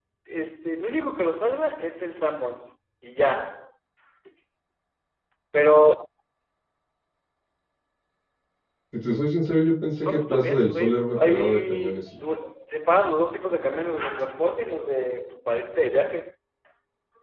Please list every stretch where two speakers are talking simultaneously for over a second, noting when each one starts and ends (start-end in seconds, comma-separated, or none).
10.0-12.0